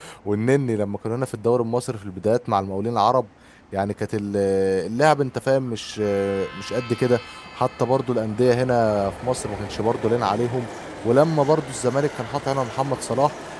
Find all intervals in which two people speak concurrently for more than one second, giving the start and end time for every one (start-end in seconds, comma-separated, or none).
none